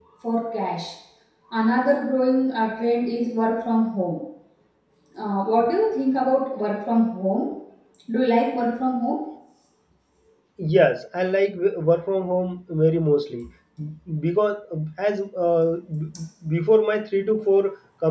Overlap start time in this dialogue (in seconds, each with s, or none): none